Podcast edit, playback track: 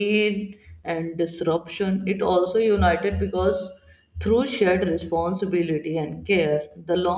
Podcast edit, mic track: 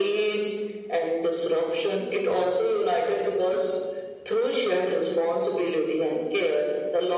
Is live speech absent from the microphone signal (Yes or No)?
Yes